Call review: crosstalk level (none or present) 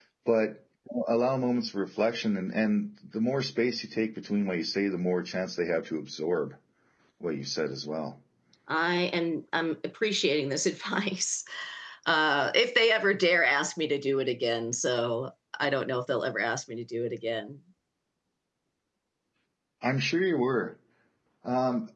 none